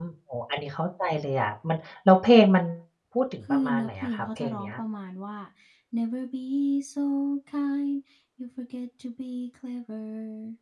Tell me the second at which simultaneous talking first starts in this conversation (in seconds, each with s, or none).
3.5 s